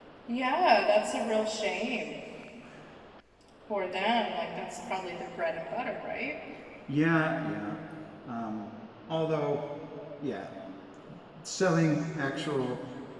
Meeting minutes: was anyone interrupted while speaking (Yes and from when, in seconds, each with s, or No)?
No